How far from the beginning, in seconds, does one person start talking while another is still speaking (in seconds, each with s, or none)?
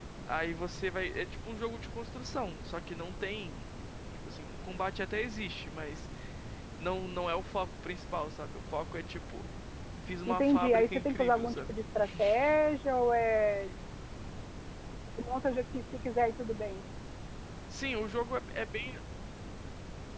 10.3 s